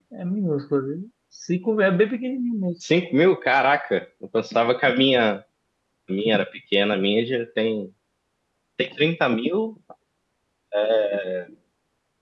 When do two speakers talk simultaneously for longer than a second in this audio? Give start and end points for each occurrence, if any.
none

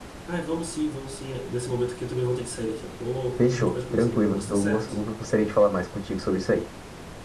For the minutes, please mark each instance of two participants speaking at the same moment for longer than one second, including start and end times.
3.4-4.9

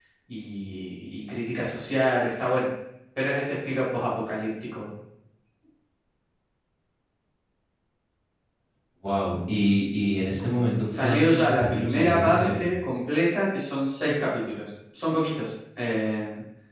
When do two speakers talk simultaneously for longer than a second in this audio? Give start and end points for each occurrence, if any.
10.8-12.7

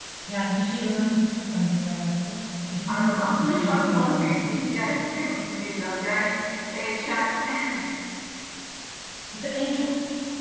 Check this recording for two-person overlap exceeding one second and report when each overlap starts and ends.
2.9-4.6

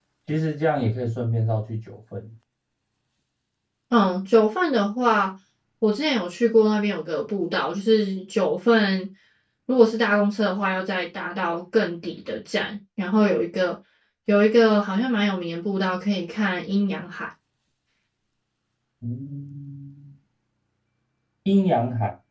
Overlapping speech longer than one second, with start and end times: none

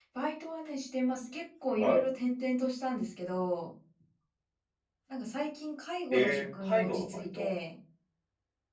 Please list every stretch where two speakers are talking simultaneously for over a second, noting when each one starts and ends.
6.1-7.5

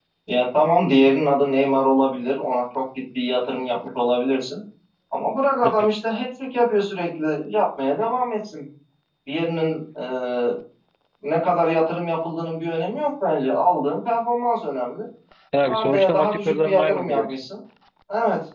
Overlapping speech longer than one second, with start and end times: 15.7-17.4

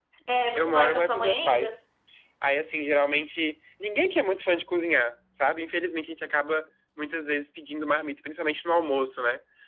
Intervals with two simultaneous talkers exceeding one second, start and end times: 0.6-1.8

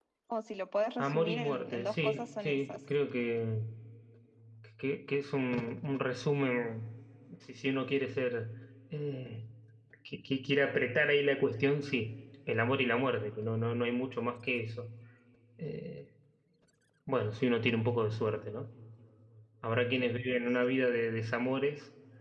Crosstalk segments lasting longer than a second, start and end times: 1.0-2.8

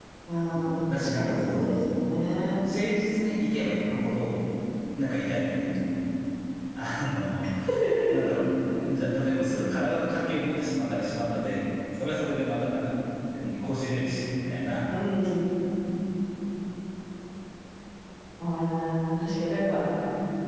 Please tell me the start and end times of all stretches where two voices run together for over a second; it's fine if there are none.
0.5-1.8

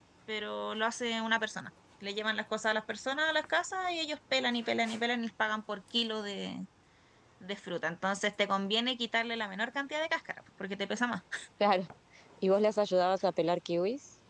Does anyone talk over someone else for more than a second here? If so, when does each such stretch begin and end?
none

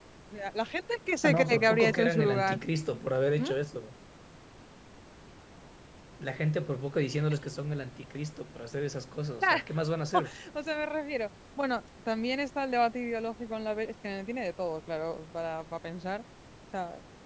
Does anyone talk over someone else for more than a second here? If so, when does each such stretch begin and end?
1.2-2.6

